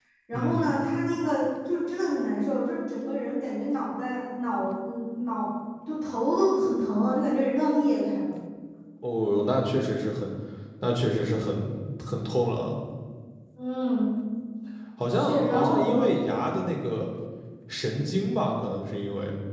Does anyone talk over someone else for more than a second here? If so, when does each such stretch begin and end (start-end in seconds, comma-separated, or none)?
15.1-16.4